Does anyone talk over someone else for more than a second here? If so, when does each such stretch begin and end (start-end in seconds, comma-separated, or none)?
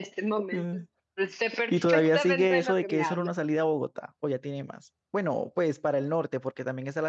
1.7-3.3